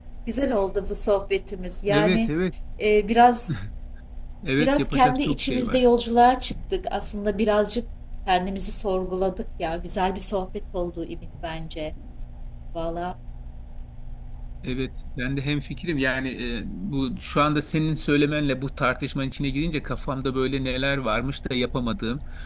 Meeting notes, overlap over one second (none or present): present